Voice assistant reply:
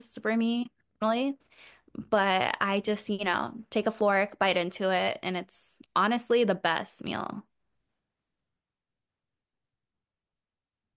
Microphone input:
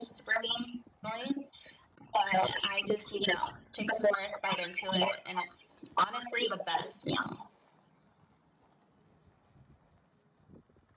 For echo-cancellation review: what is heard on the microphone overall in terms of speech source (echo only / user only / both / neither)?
echo only